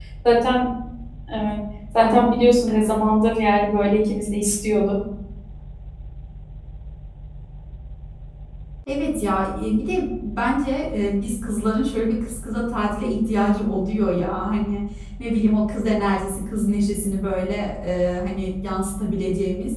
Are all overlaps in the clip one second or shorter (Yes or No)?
Yes